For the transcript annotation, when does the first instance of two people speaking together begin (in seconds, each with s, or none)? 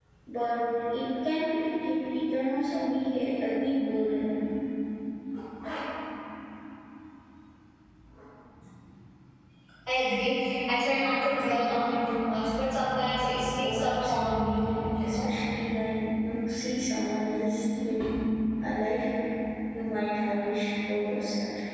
13.6 s